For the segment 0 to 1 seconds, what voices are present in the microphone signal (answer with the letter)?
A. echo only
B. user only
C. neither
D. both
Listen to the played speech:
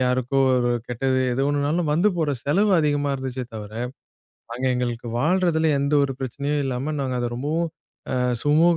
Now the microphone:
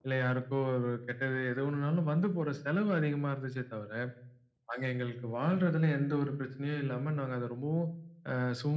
A